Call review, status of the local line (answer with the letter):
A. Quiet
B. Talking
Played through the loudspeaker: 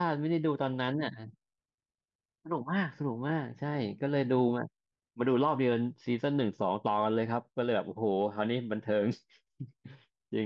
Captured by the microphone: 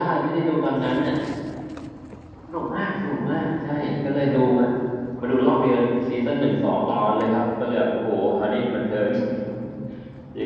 A